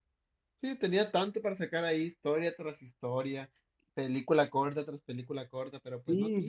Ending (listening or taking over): taking over